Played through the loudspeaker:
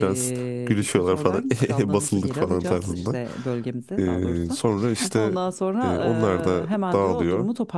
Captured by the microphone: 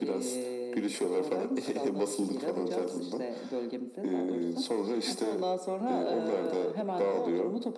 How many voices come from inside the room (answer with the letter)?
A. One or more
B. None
B